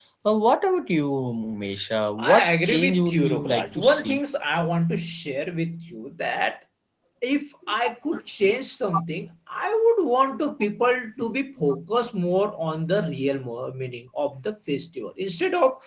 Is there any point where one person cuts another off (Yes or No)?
Yes